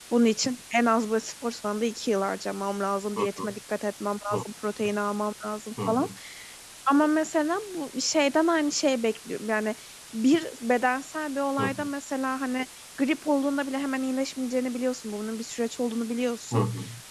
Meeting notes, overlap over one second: none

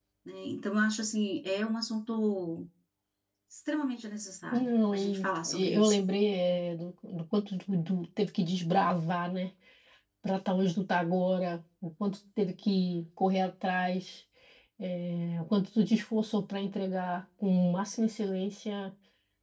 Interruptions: present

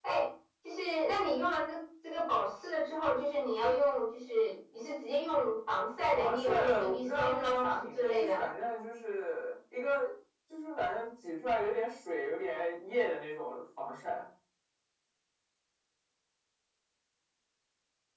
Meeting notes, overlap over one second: present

